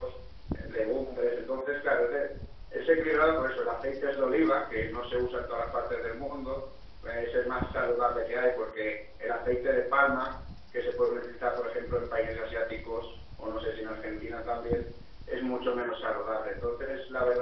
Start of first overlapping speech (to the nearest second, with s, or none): none